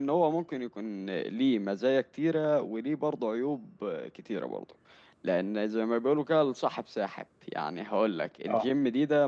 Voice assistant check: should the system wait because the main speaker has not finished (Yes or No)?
Yes